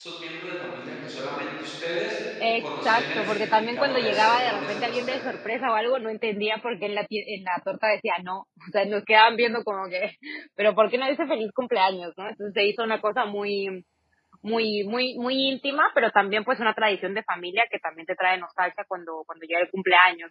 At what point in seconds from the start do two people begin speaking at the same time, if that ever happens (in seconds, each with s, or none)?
2.4 s